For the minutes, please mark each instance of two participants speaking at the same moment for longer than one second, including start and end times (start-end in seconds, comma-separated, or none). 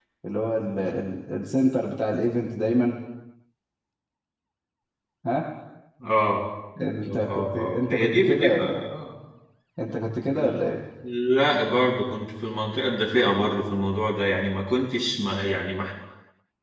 7.1-8.8